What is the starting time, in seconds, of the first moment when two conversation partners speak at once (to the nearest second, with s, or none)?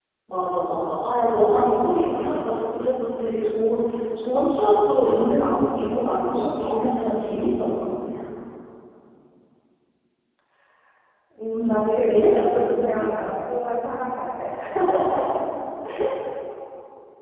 5 s